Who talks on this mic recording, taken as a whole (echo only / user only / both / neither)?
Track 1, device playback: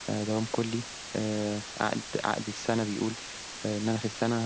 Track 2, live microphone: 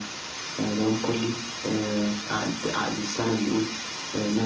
echo only